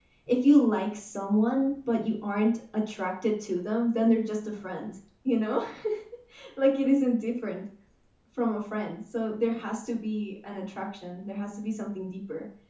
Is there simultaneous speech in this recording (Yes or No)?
No